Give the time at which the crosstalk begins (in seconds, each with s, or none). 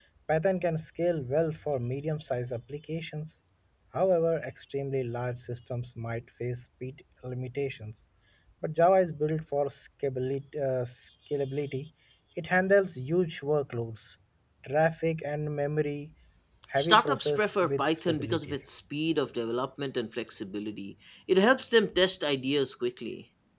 16.8 s